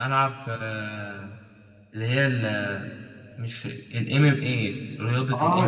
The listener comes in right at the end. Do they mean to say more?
Yes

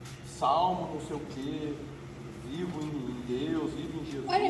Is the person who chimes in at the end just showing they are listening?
No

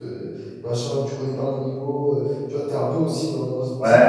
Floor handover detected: Yes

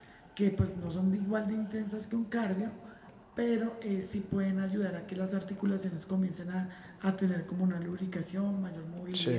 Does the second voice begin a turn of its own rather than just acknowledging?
No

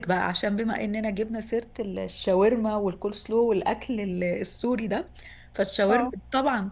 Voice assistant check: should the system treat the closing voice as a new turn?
No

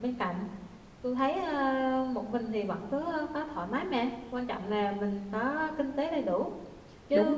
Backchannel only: No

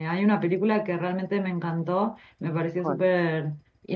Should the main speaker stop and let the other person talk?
No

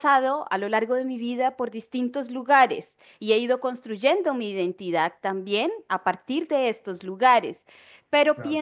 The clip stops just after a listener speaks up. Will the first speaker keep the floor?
Yes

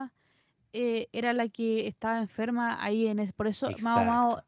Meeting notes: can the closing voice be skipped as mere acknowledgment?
Yes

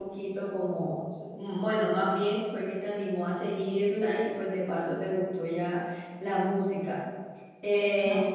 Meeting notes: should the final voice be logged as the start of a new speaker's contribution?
No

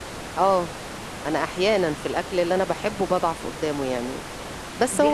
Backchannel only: Yes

